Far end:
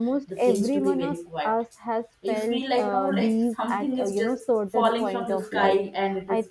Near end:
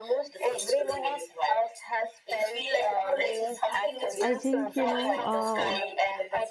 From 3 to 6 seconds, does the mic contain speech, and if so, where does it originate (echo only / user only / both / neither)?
both